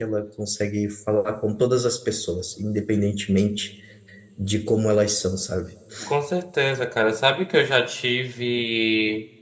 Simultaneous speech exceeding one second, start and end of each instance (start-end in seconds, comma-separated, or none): none